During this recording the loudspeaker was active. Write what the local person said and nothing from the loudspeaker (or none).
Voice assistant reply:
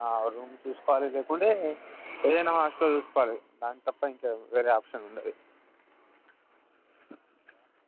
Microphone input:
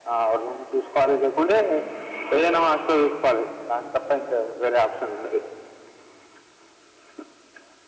none